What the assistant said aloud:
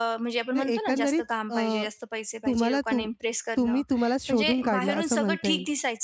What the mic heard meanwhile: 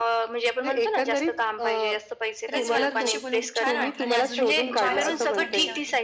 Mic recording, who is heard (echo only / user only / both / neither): both